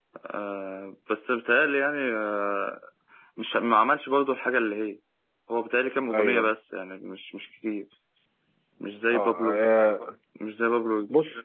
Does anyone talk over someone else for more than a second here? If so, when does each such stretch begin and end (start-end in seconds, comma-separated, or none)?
none